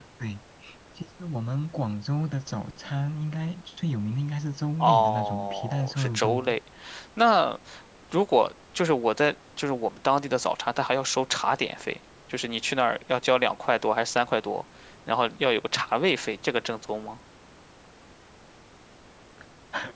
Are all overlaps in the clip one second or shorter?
No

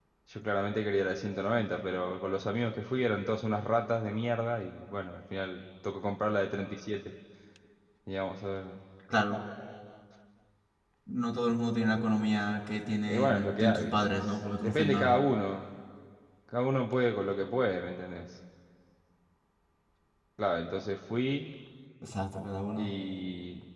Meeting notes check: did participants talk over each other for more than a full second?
Yes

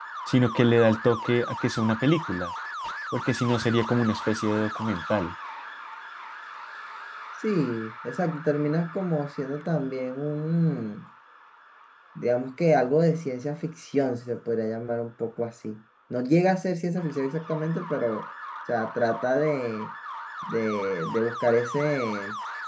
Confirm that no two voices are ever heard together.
Yes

